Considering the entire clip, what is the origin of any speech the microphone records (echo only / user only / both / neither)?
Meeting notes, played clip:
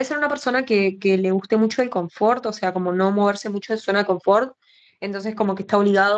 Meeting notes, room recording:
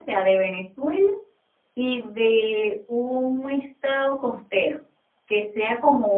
user only